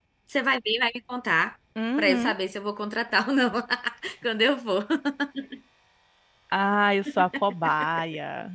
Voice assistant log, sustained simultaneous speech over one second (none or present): none